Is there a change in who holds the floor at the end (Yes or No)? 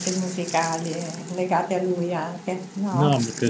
Yes